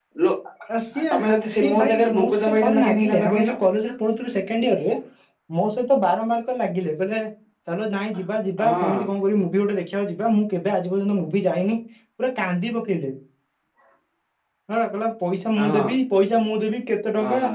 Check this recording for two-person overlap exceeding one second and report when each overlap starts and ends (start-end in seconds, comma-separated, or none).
1.1-3.6